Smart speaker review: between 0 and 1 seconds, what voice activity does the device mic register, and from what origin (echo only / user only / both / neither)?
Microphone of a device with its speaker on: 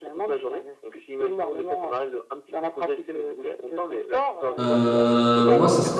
echo only